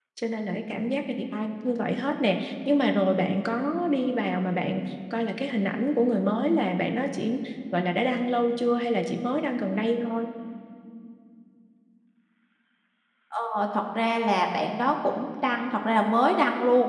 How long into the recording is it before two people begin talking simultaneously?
none

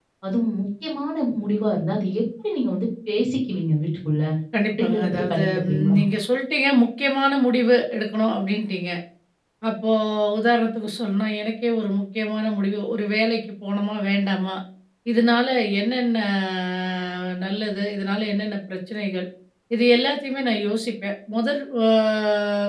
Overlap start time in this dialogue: 4.7 s

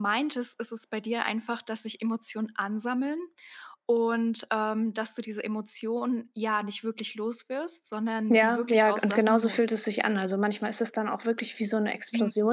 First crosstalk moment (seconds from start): 8.3 s

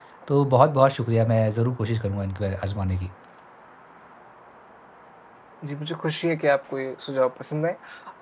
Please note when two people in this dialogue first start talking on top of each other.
none

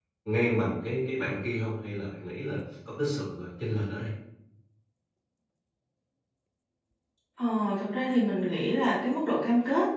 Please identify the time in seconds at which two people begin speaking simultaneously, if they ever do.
none

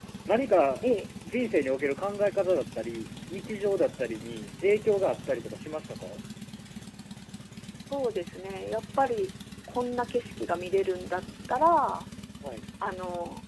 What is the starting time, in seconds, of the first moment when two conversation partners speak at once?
none

